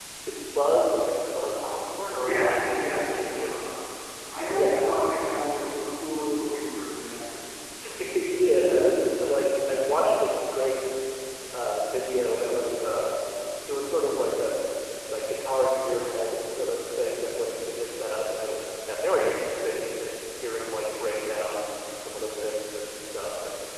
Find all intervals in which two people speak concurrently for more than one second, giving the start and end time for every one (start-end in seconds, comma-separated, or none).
2.1-3.6